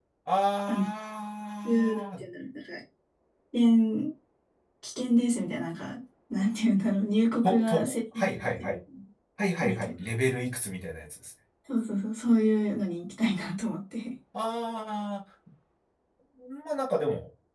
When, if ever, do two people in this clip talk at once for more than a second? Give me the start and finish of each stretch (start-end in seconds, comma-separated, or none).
7.4-8.8